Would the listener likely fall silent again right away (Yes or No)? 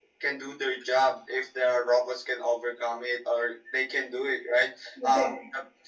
Yes